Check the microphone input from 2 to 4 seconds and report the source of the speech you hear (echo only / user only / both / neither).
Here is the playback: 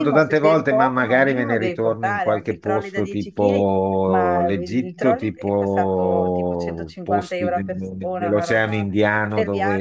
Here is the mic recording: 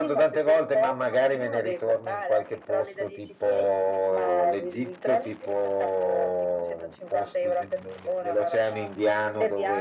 echo only